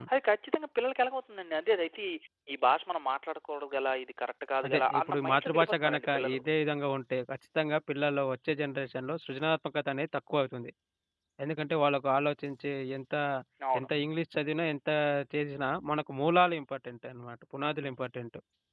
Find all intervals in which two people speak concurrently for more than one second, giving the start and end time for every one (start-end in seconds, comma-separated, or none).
4.7-6.4